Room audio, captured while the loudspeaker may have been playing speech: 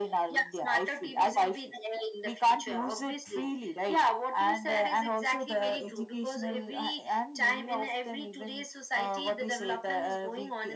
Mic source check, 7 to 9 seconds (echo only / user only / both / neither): echo only